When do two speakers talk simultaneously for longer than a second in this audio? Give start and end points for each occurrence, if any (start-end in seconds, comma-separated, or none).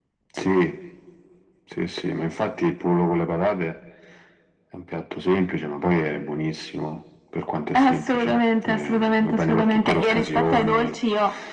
7.7-10.9